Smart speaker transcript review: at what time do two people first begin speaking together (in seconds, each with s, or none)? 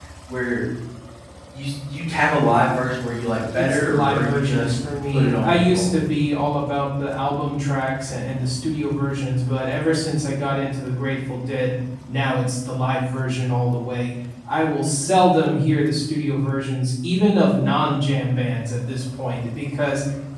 3.5 s